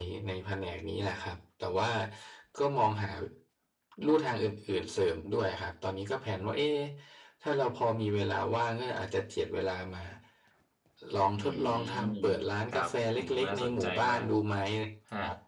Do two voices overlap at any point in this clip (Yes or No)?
Yes